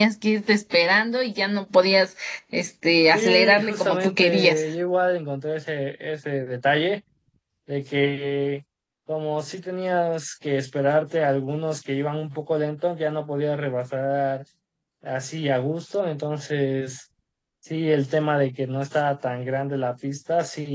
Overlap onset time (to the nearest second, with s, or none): 3 s